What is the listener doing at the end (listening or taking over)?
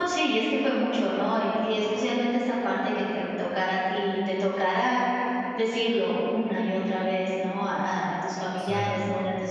listening